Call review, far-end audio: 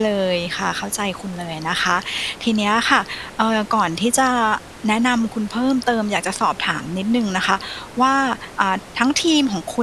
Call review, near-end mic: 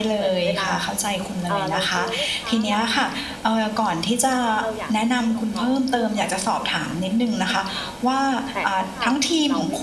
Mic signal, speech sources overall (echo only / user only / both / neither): both